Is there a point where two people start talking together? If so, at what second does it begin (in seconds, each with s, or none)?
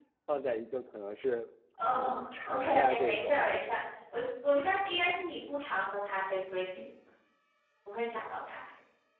2.0 s